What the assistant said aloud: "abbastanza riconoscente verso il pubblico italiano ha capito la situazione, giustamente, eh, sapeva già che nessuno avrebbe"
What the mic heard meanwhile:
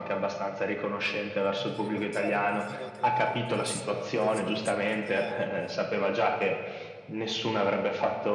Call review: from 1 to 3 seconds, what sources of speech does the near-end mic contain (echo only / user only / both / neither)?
both